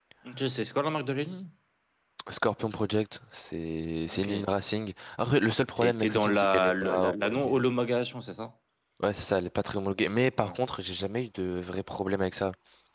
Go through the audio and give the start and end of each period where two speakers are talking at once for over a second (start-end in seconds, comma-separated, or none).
5.8-7.6